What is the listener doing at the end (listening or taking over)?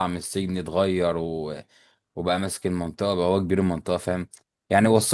listening